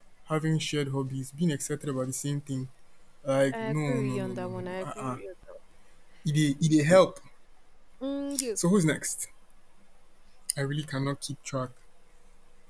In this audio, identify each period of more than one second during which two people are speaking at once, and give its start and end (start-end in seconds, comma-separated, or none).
3.5-5.2